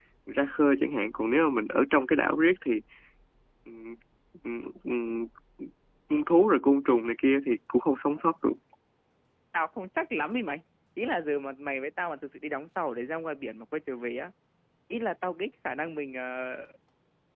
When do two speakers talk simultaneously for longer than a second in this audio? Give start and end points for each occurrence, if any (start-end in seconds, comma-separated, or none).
none